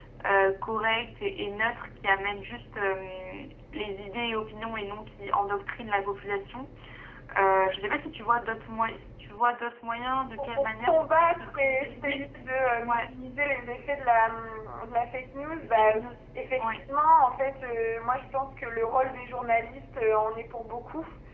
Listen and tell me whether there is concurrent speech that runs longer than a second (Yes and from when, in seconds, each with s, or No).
Yes, from 10.4 s